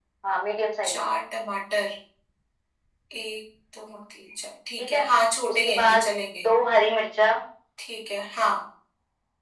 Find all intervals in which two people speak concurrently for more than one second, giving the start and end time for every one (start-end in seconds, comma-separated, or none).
none